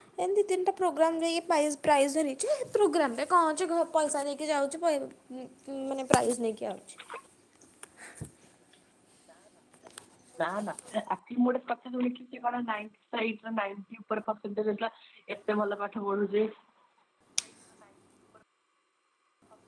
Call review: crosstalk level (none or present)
none